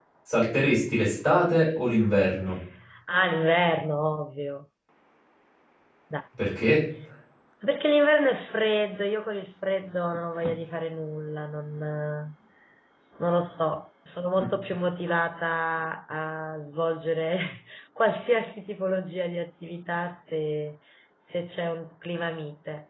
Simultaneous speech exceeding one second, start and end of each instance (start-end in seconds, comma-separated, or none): none